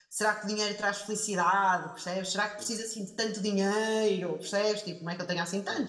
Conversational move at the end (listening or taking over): listening